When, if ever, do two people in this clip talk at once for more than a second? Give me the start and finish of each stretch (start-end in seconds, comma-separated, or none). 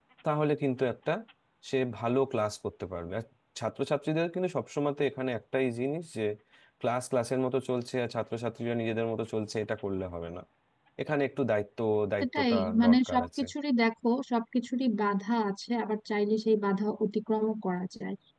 12.2-13.4